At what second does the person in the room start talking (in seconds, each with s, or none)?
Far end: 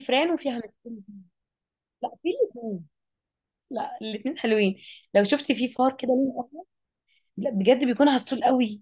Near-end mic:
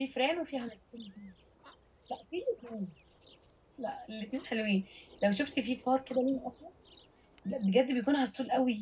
none